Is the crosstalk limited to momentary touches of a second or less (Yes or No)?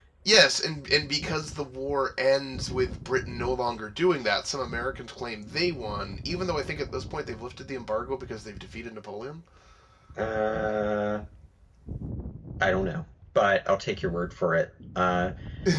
Yes